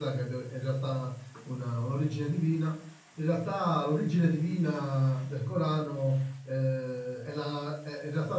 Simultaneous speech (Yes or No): No